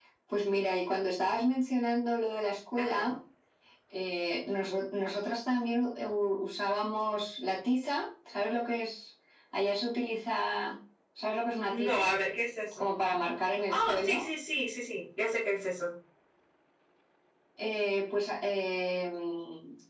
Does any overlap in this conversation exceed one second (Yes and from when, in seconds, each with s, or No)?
No